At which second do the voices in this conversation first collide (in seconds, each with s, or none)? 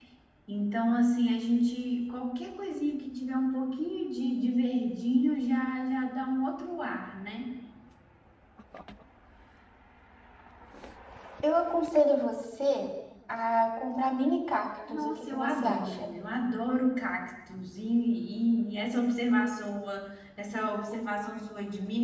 14.8 s